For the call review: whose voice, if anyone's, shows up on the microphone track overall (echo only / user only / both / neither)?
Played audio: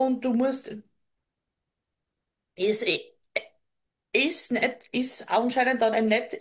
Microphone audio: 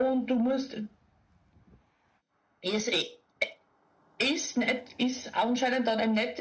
echo only